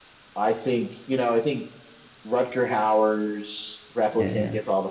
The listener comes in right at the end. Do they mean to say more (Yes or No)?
No